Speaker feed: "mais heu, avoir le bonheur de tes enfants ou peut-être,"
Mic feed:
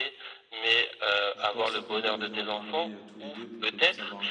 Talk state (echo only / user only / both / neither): both